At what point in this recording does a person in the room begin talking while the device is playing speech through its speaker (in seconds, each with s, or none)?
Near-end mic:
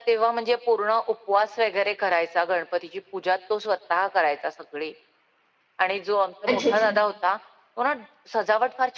6.5 s